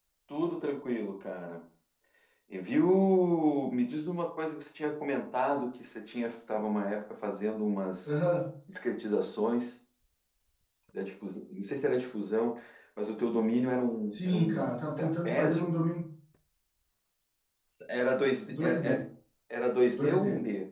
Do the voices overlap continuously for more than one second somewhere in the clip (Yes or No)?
Yes